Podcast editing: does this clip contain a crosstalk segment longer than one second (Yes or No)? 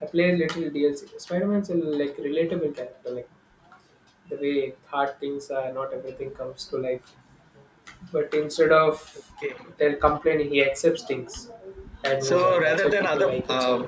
Yes